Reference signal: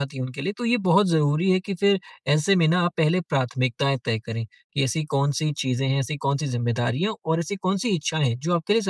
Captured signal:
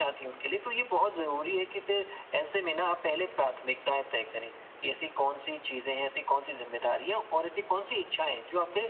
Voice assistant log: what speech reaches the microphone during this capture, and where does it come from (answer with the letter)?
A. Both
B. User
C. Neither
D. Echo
D